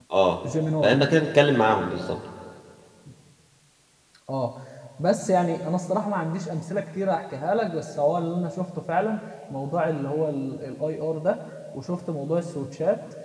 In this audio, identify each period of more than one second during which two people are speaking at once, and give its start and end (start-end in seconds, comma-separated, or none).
none